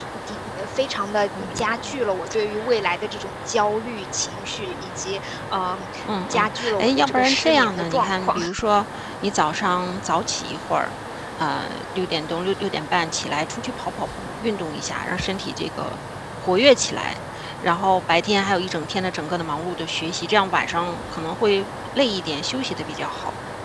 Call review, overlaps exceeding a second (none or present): present